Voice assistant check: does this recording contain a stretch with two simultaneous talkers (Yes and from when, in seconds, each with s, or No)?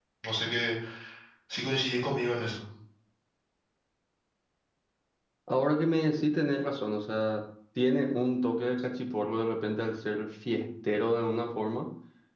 No